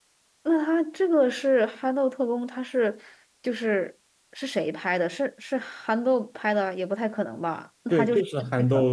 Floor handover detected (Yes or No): Yes